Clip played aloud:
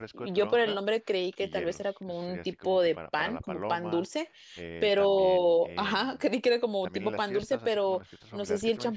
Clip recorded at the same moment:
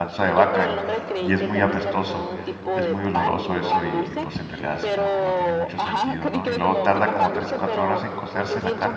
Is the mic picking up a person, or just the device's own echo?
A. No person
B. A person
B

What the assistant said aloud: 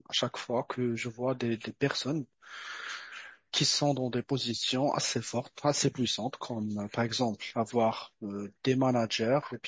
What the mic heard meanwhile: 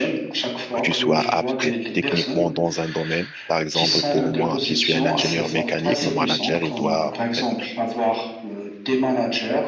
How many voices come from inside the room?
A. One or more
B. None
A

